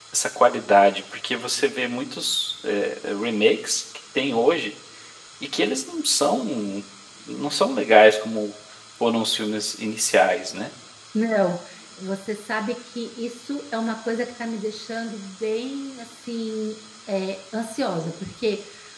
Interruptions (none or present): none